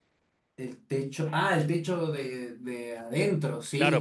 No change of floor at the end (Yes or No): No